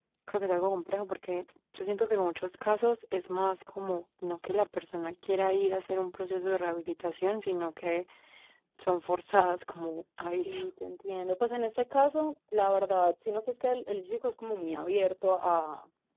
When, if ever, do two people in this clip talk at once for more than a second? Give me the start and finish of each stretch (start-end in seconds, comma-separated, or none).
none